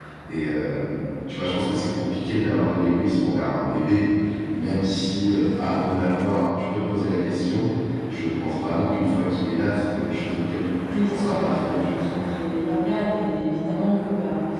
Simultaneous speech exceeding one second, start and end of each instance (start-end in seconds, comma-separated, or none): 10.9-12.2